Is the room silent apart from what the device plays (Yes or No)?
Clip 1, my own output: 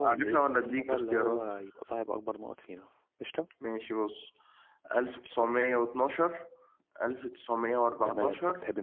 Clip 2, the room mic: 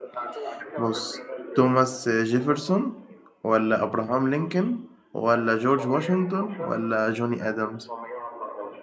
No